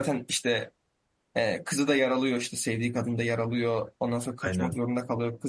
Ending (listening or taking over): listening